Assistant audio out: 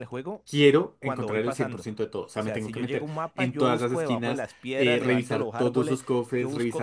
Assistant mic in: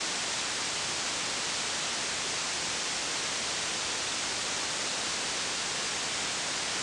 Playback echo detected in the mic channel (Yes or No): No